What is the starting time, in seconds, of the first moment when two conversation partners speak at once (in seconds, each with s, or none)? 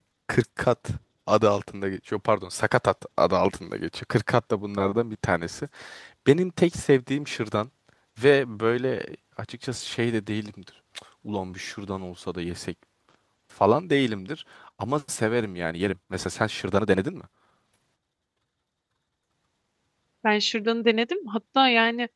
none